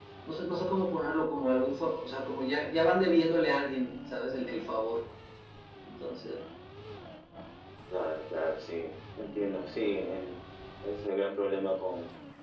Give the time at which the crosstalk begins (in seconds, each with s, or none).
none